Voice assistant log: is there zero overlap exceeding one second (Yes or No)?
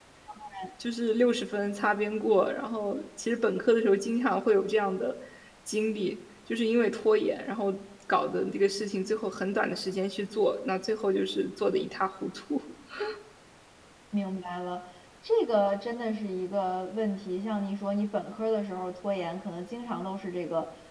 Yes